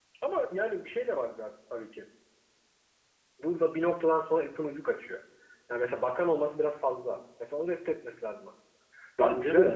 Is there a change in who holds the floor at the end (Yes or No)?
No